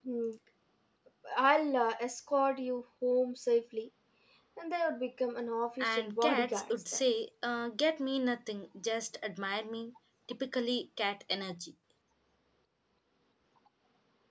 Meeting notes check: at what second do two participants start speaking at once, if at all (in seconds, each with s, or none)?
5.8 s